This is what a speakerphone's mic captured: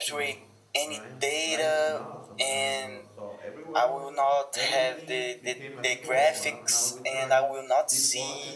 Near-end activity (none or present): present